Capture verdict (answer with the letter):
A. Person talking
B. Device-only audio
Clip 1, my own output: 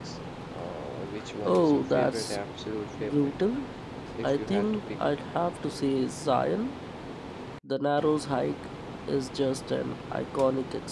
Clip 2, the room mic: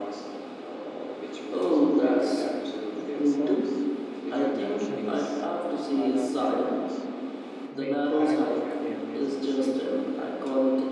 A